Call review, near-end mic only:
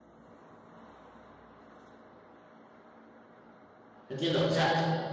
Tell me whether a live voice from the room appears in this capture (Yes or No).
Yes